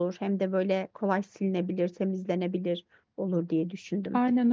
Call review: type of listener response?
taking over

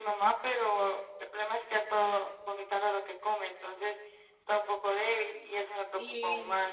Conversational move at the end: taking over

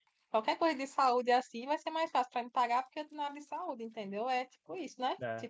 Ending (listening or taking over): taking over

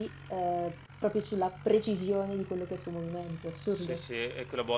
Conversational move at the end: taking over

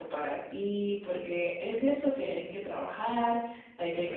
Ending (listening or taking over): listening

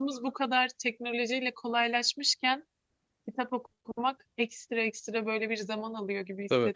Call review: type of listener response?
listening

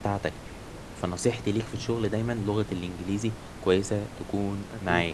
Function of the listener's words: taking over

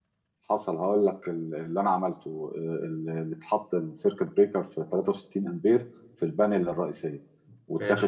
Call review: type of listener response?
listening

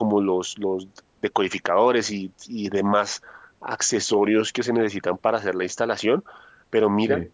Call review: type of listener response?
listening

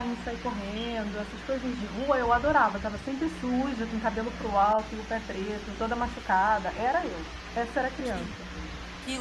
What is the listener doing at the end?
taking over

